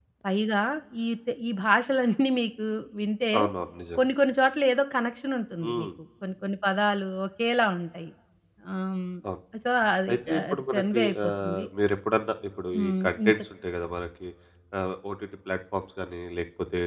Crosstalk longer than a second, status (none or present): present